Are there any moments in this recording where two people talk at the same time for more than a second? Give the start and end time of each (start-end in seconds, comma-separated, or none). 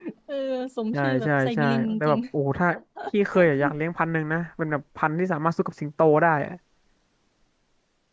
0.9-2.2